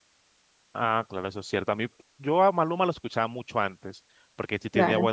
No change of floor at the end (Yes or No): Yes